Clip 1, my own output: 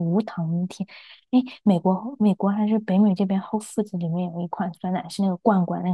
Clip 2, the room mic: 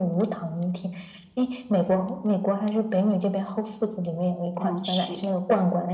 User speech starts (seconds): 4.5 s

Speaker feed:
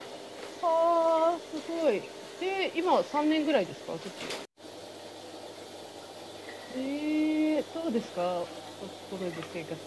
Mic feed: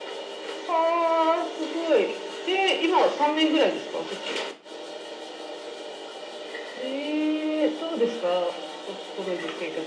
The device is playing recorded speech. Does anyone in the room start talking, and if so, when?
none

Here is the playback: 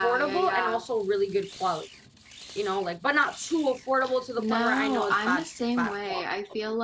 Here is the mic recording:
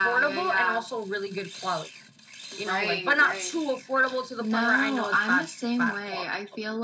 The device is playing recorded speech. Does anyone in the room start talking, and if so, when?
2.5 s

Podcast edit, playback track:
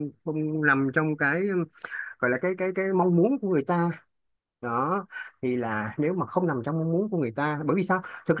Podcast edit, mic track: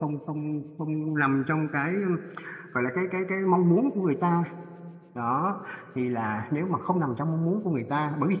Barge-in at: none

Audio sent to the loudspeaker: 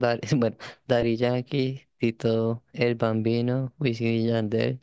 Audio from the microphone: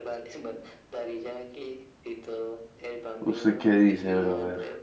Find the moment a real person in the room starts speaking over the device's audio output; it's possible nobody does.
3.2 s

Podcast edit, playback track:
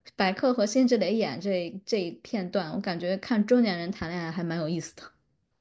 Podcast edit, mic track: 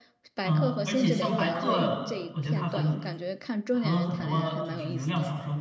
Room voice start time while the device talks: 0.4 s

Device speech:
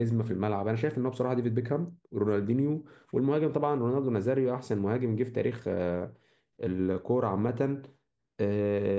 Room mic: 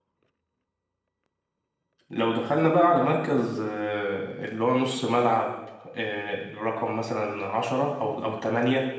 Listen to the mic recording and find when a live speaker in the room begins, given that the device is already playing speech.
2.1 s

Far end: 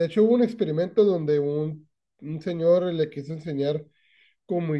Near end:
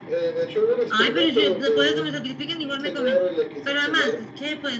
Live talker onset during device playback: 0.9 s

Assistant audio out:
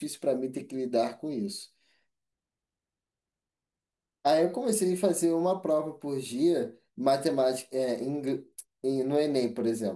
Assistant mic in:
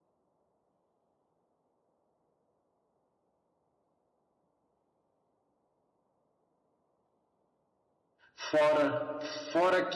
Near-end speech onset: 8.3 s

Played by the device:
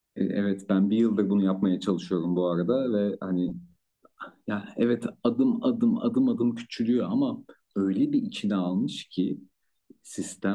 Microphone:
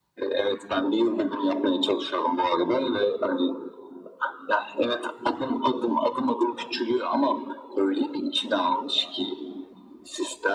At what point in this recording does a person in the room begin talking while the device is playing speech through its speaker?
none

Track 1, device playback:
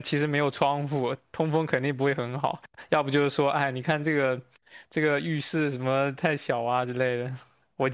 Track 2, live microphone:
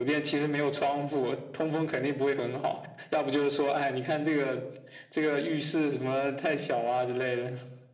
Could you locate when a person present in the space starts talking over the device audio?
none

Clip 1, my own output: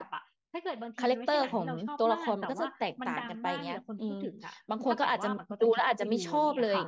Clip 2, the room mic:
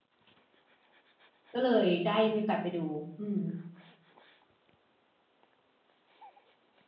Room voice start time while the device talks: 1.5 s

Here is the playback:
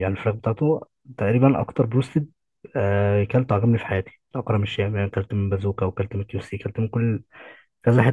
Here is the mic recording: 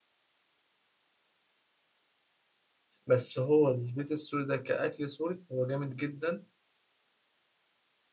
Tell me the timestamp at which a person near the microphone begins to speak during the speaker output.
3.1 s

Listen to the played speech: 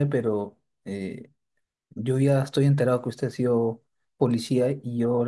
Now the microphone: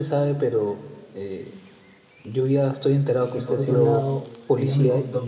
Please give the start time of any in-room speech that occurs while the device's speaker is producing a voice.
3.2 s

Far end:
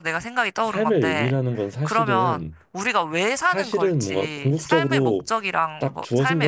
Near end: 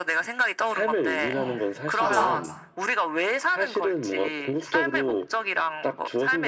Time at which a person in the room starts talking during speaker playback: 1.3 s

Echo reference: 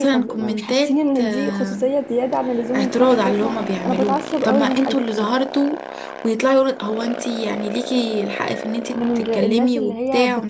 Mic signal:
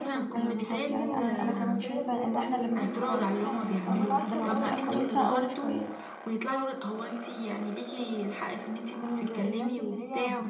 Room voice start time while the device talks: 0.3 s

